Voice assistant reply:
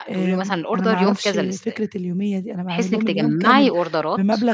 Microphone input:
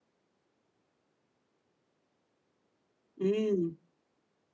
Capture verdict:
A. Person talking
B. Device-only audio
A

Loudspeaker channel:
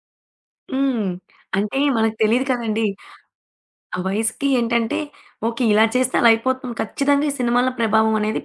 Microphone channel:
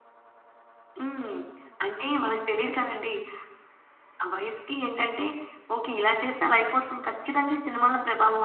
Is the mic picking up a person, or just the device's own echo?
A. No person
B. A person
A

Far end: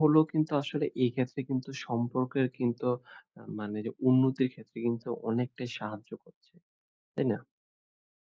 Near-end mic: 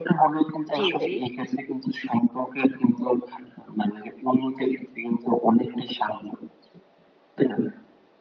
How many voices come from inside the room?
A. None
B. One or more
B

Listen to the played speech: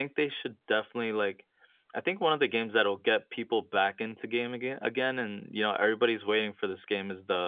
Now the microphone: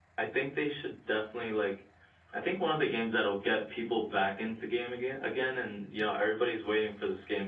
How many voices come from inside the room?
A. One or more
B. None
B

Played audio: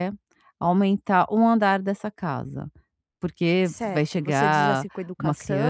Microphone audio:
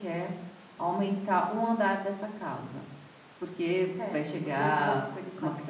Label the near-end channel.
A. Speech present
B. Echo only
B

